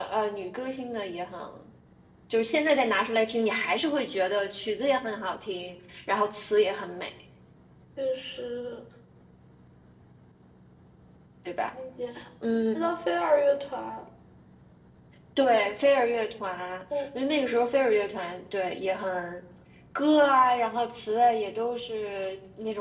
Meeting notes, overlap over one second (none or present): none